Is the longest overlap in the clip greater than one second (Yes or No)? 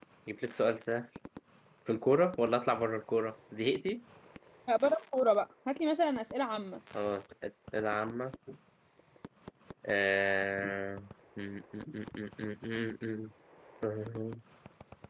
No